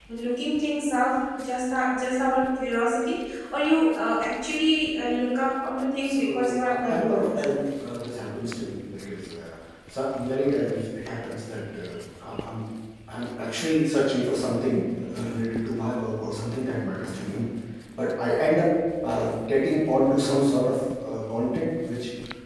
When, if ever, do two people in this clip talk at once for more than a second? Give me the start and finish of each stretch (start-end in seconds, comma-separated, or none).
6.0-7.5